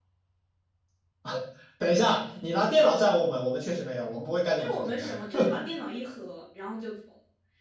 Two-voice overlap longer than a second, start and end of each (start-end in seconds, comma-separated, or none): none